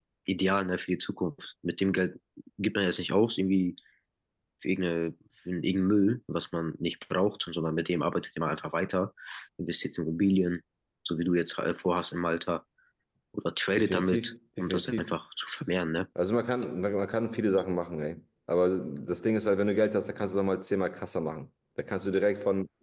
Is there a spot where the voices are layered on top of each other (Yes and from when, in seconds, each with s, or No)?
Yes, from 13.8 s